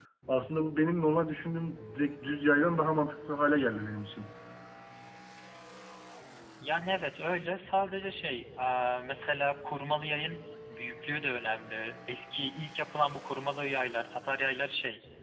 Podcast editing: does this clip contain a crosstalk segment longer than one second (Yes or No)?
No